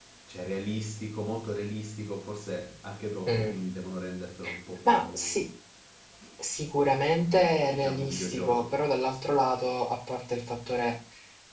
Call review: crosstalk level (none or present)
present